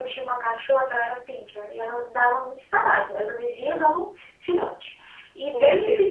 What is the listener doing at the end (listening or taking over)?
listening